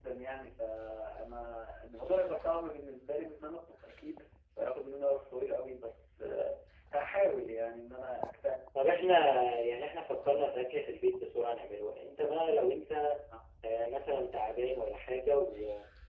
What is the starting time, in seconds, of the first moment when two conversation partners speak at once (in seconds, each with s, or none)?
none